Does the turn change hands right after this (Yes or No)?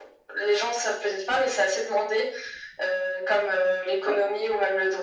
No